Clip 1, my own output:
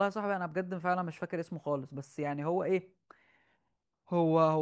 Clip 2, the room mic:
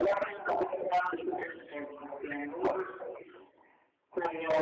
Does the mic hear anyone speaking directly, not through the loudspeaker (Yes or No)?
No